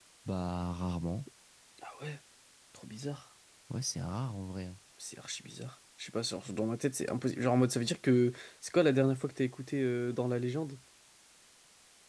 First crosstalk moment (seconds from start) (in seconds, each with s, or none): none